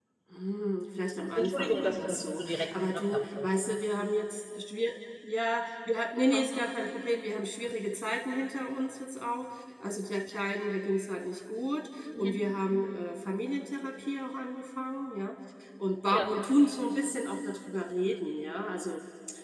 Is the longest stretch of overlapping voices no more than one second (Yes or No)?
No